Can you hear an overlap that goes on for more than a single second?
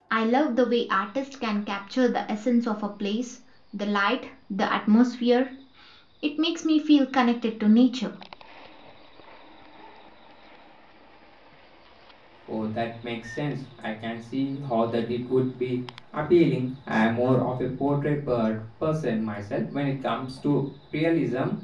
No

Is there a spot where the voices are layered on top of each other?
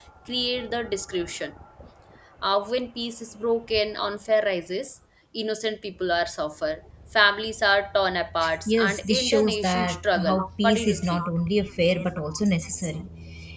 Yes, from 8.4 s

